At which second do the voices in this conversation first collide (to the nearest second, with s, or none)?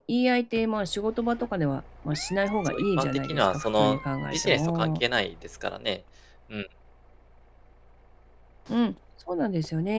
3 s